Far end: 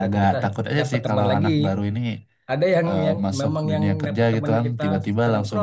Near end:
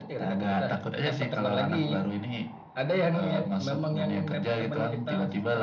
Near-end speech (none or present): none